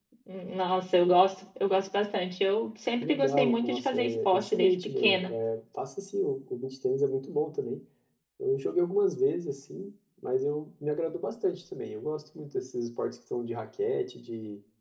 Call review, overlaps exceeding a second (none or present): present